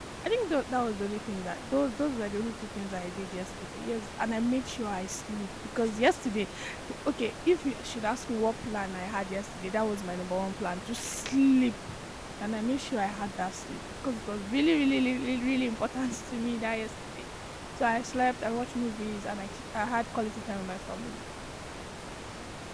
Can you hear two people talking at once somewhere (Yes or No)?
No